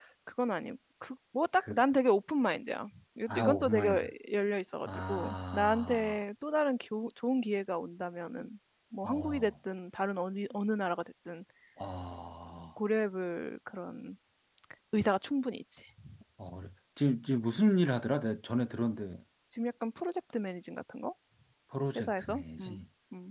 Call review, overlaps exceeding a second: present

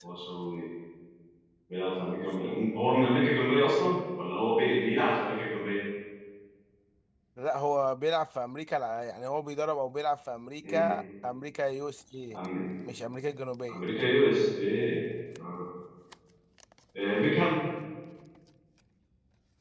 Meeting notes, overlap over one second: none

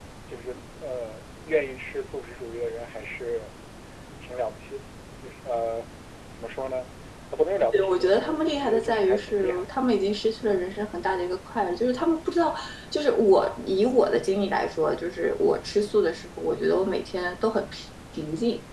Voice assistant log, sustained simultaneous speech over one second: present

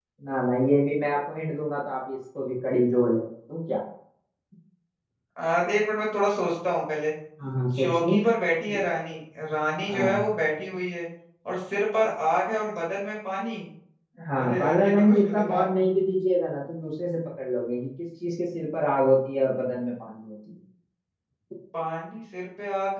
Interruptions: present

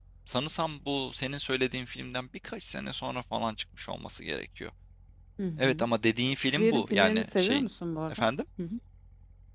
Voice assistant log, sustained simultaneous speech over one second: present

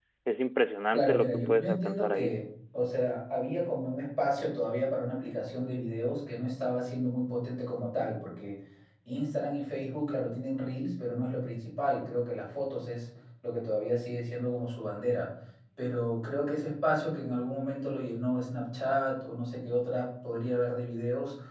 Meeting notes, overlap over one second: present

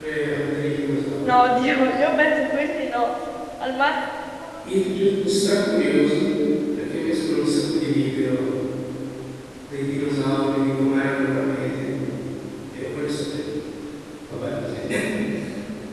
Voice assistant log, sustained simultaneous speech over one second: none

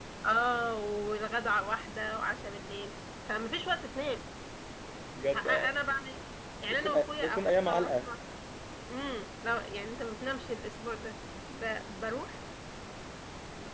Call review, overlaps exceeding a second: present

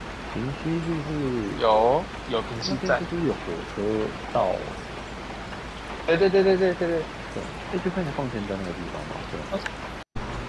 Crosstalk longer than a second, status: none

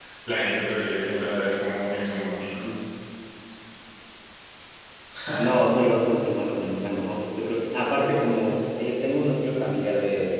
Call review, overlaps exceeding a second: none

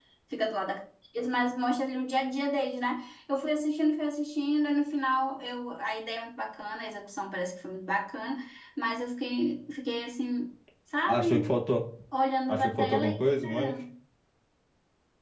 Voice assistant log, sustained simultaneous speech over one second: present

